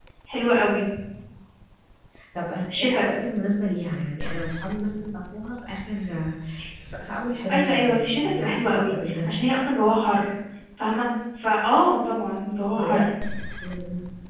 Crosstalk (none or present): present